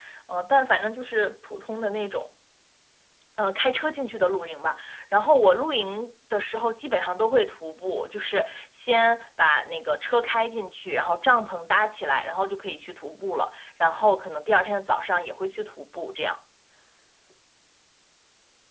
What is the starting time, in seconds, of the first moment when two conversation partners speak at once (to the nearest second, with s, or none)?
none